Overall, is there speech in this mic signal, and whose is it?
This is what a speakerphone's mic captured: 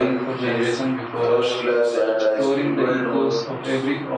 both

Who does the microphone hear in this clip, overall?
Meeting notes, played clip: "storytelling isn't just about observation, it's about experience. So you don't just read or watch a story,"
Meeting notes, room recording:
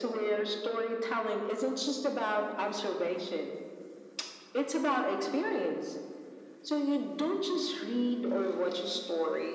echo only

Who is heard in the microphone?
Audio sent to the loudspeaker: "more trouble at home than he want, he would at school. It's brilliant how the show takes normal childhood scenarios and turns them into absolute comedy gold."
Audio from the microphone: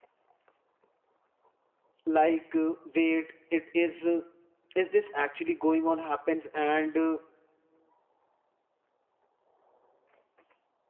user only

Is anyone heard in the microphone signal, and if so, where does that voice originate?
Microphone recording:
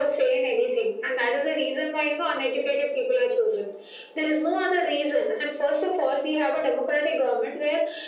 echo only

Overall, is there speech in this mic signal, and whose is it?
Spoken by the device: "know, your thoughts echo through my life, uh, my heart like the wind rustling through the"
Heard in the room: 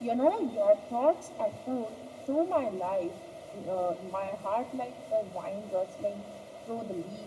echo only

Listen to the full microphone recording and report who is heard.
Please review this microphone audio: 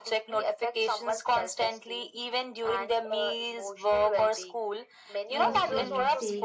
both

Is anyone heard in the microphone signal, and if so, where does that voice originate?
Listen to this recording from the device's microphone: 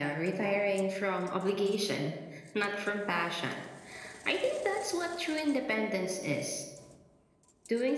echo only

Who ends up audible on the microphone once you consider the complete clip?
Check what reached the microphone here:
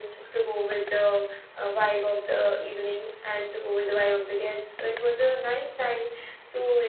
echo only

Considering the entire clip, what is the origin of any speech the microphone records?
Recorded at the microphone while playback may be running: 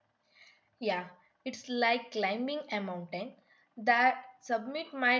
user only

